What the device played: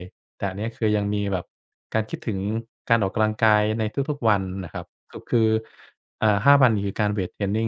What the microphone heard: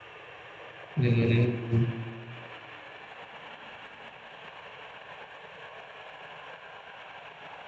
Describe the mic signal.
user only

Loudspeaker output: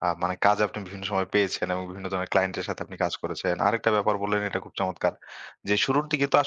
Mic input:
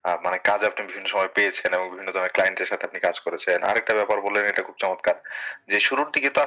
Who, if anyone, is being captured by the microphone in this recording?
echo only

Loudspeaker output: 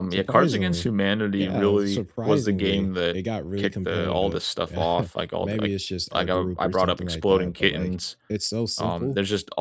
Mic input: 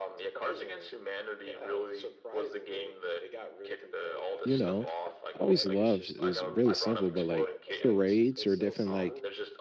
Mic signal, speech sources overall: both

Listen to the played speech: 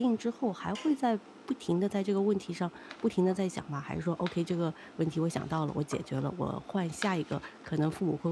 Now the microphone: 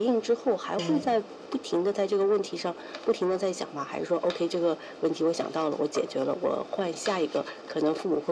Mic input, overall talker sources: both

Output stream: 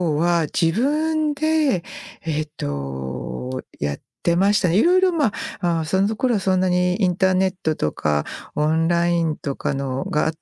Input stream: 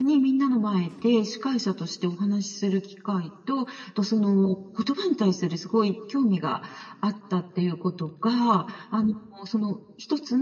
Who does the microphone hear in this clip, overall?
user only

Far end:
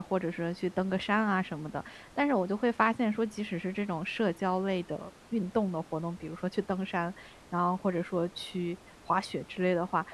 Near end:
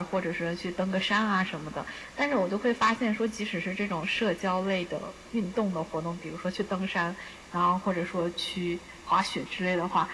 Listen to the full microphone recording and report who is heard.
echo only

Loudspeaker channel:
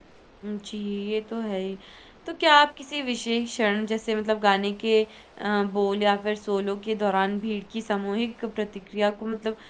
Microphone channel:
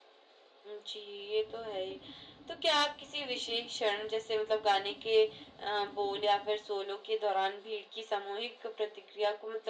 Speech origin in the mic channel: echo only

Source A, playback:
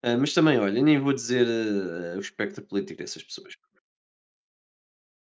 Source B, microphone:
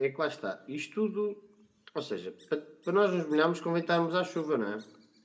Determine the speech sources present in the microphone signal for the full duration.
user only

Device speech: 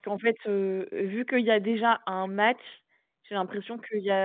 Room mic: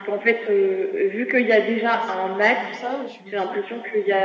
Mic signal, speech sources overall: both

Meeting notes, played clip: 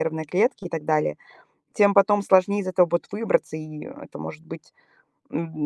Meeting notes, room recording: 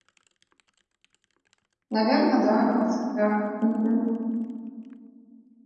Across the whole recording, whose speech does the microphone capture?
user only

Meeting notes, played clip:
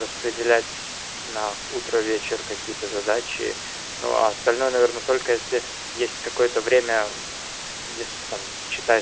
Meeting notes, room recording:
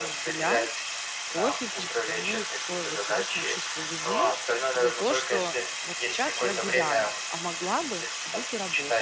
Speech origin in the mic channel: both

